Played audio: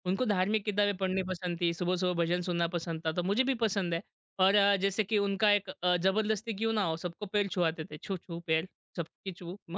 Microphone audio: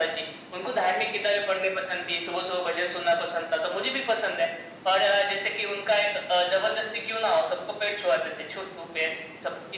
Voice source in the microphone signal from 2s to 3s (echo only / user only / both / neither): echo only